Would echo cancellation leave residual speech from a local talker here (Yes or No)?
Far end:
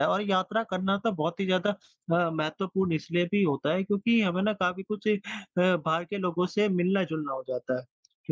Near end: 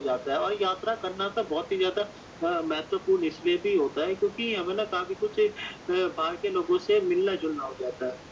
No